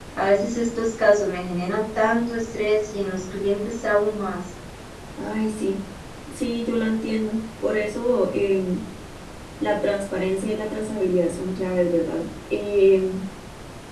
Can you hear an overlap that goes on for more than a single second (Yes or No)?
No